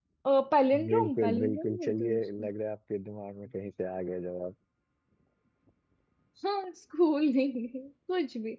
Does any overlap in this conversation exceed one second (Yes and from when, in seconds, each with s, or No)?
Yes, from 0.9 s